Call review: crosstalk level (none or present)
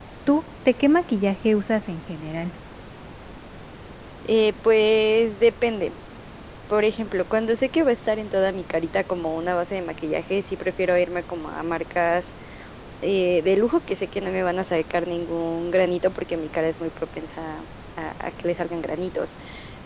none